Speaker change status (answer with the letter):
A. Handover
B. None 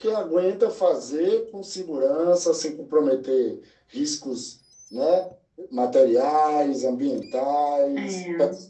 B